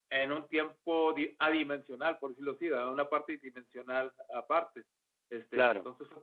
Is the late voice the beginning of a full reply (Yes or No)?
No